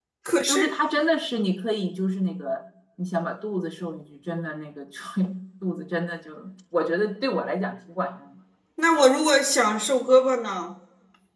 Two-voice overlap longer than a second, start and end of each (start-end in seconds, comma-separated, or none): none